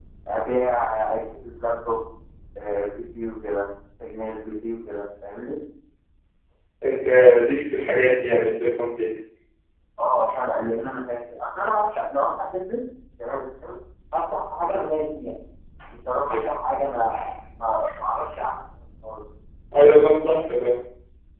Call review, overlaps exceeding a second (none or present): none